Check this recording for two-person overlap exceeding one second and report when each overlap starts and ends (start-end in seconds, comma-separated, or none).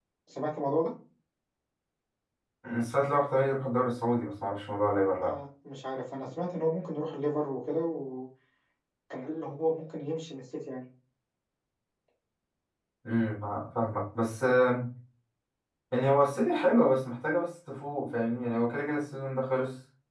none